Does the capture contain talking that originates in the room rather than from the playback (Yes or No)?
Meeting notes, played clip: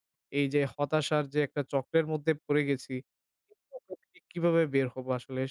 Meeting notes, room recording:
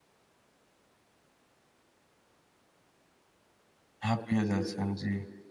Yes